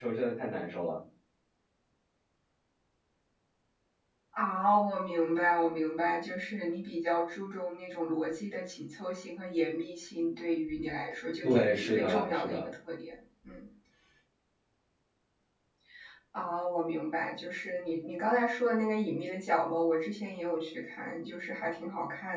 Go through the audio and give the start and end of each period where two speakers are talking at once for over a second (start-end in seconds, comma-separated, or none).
11.4-12.7